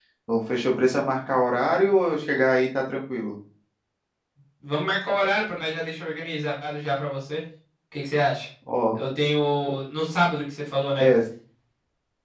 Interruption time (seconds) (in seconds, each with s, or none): none